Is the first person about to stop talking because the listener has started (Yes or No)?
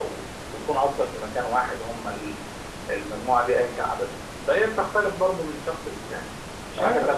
Yes